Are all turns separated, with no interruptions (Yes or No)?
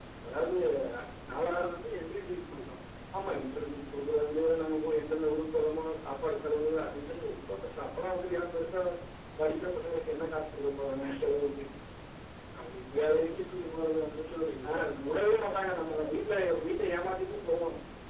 No